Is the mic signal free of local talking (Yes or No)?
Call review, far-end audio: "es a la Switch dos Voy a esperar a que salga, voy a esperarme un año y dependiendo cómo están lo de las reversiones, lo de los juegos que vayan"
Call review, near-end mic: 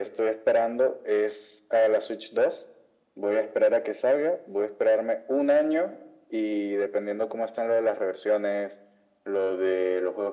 Yes